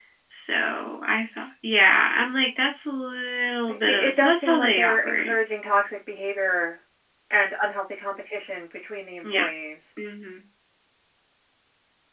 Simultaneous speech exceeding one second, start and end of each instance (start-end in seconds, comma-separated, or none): 3.7-5.3